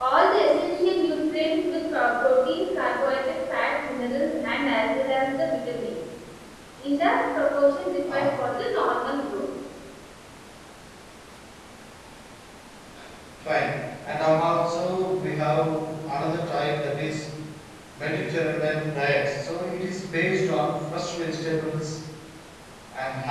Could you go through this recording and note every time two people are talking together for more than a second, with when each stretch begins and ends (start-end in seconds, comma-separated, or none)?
none